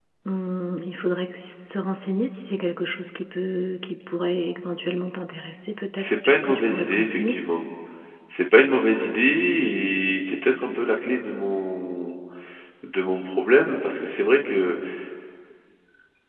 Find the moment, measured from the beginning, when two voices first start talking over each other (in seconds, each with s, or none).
6.0 s